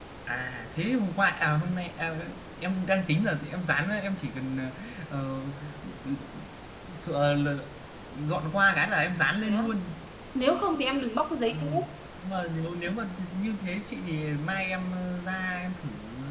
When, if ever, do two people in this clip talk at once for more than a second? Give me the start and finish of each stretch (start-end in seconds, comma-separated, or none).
none